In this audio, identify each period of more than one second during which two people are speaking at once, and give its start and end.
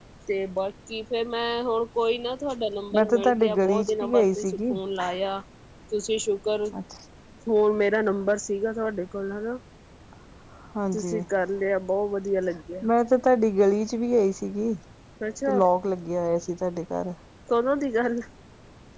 2.9-4.7

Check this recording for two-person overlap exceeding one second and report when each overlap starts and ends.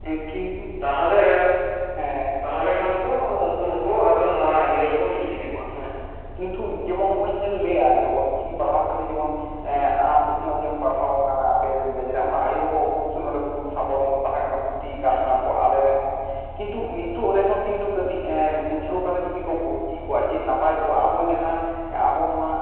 none

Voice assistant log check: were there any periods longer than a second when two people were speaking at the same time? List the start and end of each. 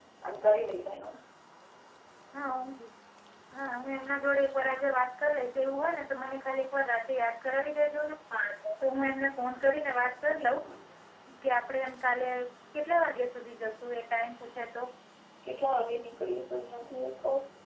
none

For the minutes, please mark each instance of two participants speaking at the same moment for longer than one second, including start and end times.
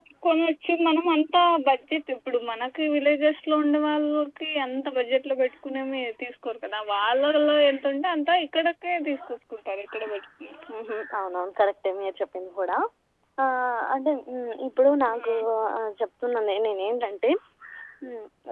none

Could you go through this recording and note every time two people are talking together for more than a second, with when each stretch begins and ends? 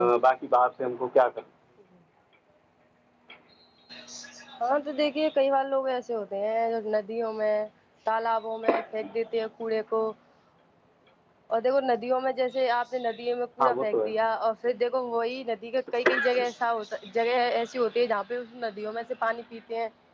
none

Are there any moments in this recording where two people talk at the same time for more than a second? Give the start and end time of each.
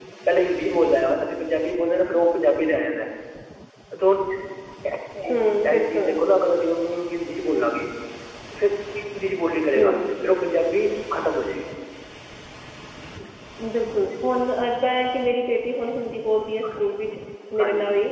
none

